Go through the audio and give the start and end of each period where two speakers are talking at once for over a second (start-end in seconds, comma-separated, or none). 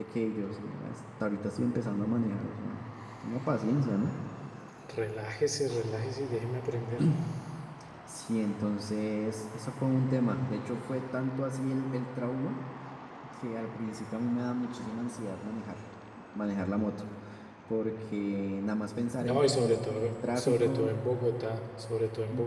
19.2-20.9